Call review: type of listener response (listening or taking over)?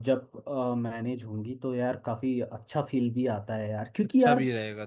taking over